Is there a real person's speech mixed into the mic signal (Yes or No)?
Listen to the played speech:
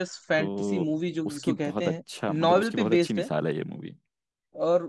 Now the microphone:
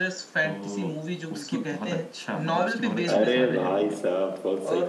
Yes